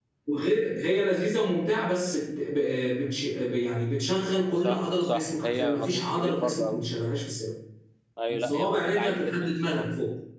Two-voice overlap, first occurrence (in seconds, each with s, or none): 4.6 s